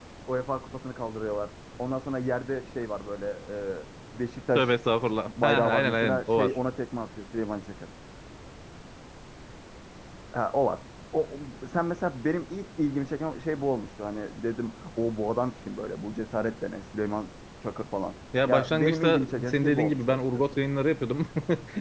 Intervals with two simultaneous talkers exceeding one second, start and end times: 5.3-6.5, 18.5-20.4

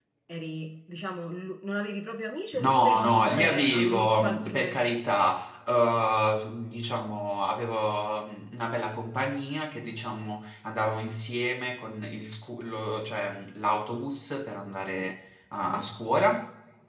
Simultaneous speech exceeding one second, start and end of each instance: 2.5-4.9

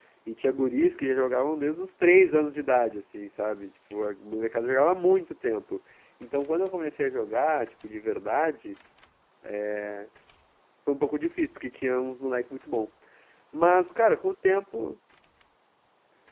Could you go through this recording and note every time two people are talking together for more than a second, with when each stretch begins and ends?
none

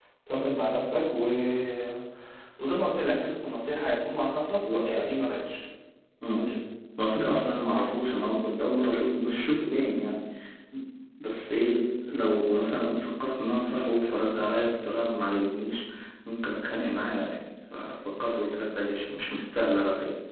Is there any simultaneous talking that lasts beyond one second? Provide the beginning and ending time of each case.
none

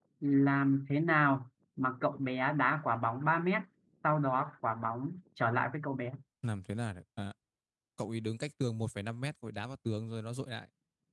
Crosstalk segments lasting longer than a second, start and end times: none

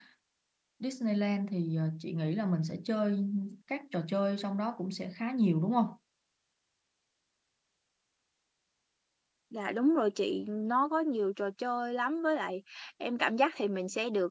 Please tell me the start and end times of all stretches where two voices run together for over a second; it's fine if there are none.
none

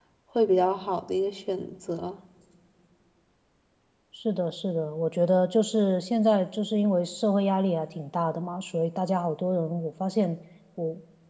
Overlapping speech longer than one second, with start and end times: none

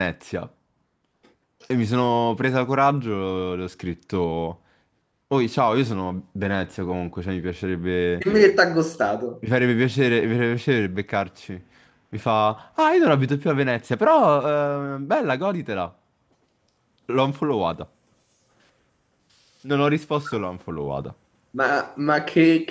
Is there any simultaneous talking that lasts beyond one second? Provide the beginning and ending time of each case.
none

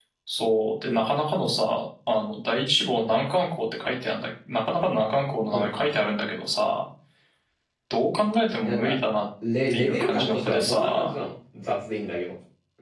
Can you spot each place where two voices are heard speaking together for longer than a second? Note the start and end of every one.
9.7-11.1

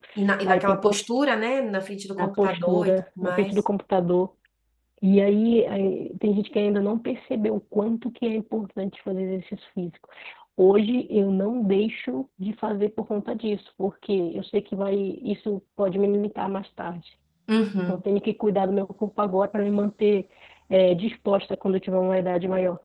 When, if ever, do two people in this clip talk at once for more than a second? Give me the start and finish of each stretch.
2.2-3.6

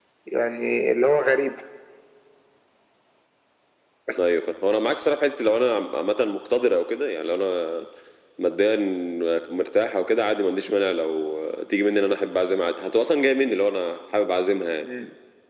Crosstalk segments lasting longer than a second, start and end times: none

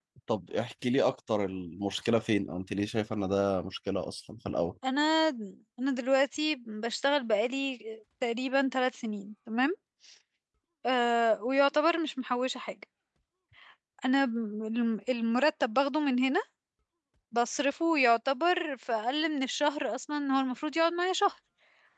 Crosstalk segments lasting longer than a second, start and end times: none

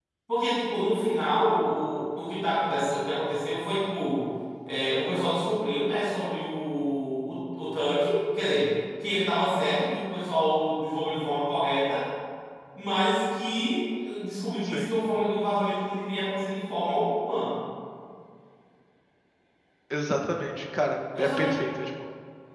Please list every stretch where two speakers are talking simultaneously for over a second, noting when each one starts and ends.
none

